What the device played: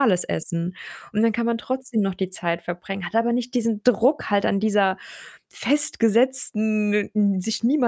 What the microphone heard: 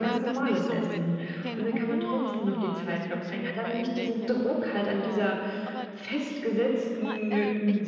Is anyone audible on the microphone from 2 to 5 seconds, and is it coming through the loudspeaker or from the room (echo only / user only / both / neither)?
both